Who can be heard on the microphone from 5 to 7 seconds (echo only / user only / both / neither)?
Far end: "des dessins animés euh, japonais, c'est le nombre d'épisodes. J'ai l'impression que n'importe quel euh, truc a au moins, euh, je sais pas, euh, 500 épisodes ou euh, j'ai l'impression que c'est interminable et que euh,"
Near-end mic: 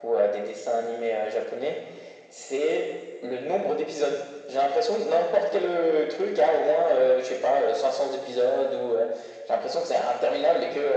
echo only